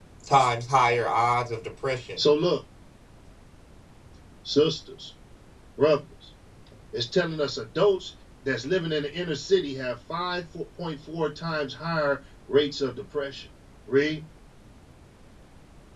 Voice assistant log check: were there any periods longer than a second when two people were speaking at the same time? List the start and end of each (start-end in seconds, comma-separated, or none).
none